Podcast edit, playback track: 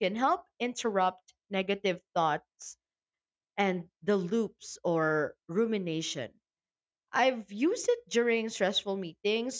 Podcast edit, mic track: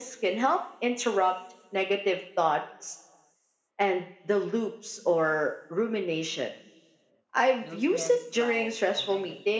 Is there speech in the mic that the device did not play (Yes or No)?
Yes